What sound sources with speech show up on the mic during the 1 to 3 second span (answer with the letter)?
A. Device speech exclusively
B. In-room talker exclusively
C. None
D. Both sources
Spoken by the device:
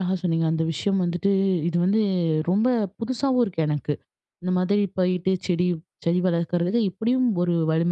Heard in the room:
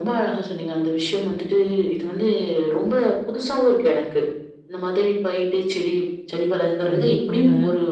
A